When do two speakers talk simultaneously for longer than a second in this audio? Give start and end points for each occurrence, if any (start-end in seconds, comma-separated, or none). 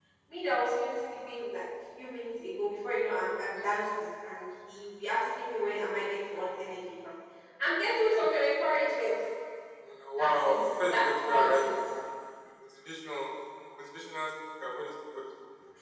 10.2-11.8